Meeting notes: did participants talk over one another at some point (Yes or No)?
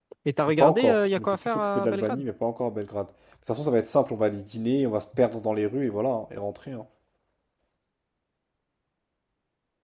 Yes